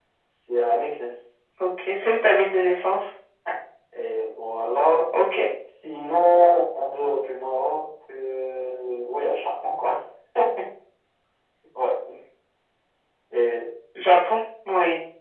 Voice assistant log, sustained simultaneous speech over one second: none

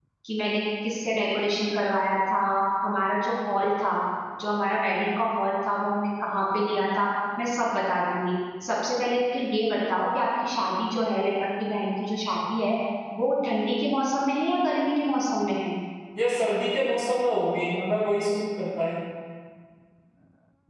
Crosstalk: none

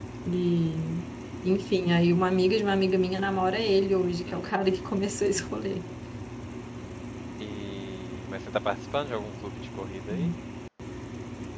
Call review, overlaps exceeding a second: none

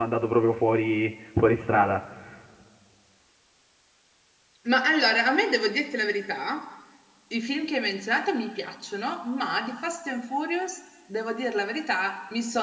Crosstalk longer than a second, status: none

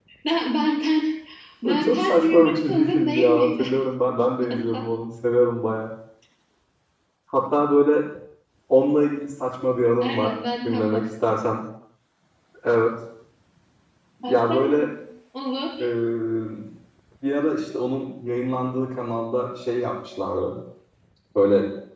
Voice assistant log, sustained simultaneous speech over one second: present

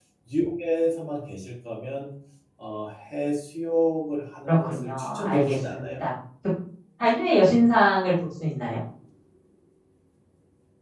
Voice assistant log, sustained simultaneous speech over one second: present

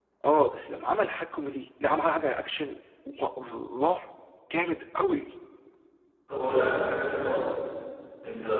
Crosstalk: none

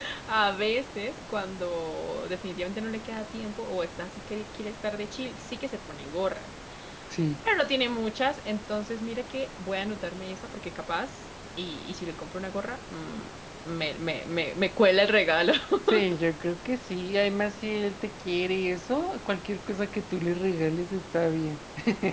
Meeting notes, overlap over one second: none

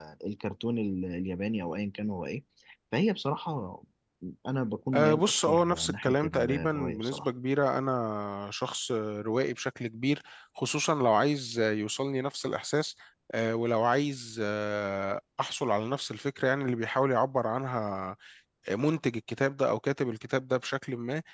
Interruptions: present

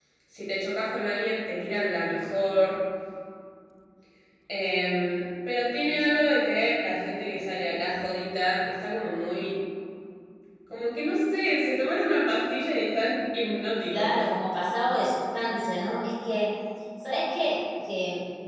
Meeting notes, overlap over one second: none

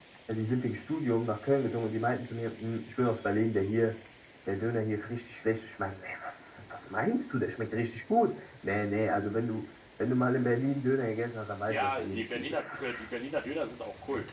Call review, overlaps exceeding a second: present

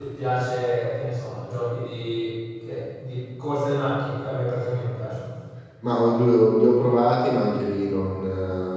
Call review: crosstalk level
none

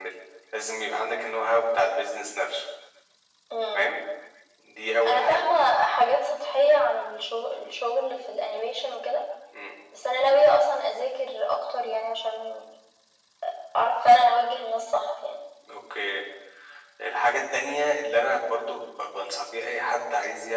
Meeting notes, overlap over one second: none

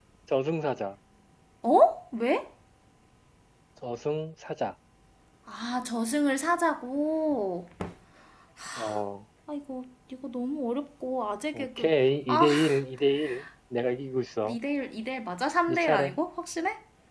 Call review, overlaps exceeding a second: none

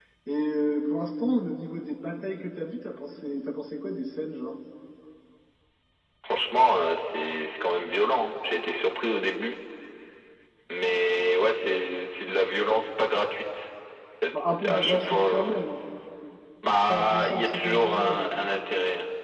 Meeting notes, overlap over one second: present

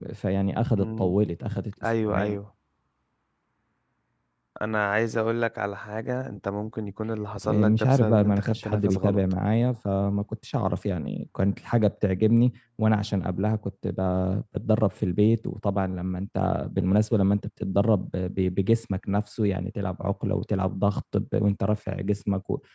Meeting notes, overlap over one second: present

